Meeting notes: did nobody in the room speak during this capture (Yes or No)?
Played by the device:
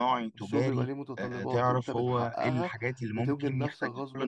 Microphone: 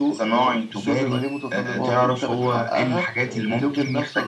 No